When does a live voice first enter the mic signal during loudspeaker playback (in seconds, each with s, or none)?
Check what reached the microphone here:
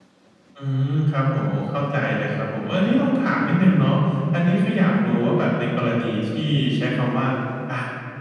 none